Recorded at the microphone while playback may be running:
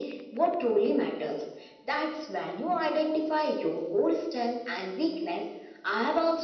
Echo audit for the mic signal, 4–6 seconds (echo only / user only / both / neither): echo only